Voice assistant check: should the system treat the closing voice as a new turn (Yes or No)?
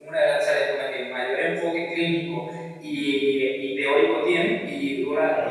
No